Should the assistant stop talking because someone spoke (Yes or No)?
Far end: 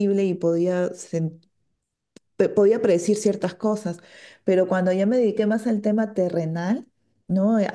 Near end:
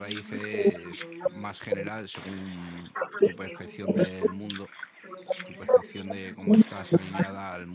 Yes